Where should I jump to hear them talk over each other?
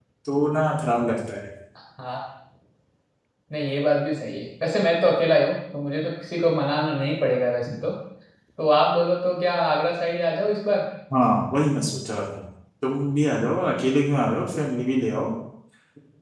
none

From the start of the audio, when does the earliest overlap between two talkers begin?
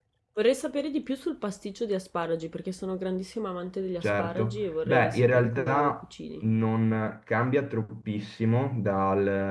4.0 s

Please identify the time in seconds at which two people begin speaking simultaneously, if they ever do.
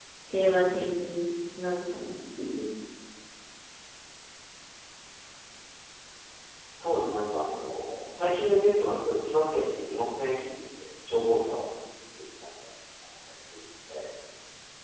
none

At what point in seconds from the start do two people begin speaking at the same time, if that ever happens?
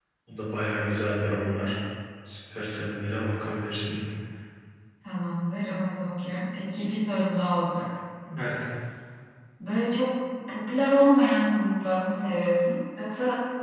none

